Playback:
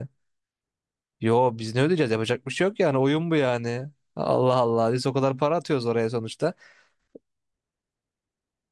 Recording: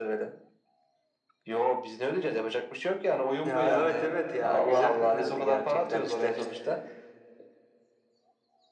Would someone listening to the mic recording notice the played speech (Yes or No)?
Yes